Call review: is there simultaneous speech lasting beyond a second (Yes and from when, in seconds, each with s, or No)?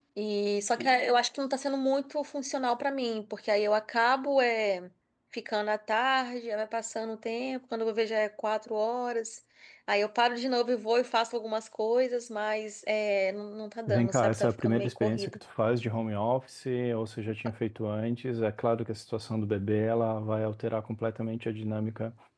Yes, from 13.9 s